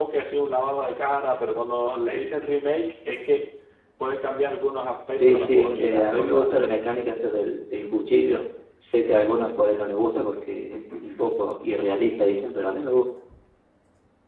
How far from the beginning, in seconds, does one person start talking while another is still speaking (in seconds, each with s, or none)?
5.2 s